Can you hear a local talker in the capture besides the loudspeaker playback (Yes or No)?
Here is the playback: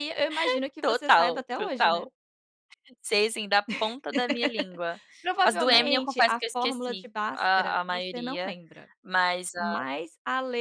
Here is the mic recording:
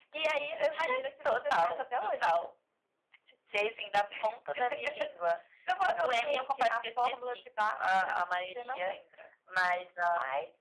No